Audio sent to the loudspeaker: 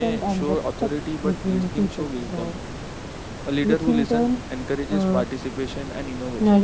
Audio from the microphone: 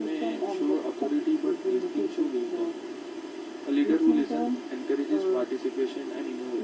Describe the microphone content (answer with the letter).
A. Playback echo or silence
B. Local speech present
A